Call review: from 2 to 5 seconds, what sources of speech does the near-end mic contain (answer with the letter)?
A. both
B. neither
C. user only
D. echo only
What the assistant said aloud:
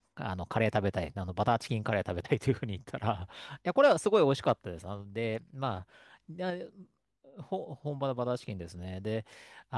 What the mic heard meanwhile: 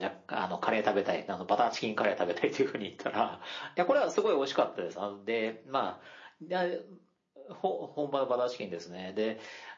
D